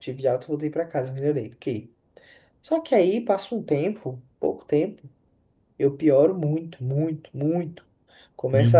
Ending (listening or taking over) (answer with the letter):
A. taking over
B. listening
B